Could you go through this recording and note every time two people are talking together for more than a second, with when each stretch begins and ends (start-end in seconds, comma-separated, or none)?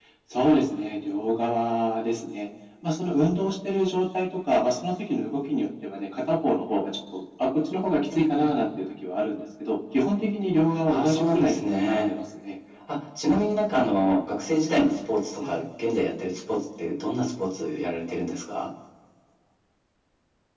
10.9-12.1